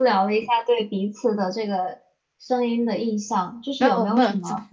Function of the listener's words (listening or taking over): taking over